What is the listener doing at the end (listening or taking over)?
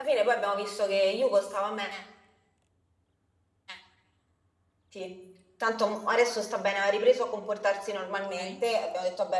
listening